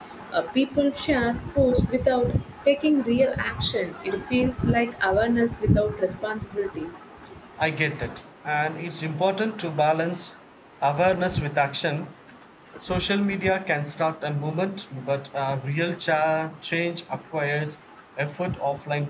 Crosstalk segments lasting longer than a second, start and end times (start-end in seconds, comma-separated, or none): none